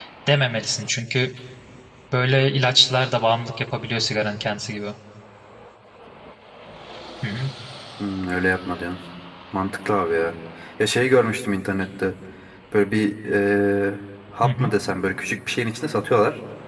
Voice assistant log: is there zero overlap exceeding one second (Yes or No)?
Yes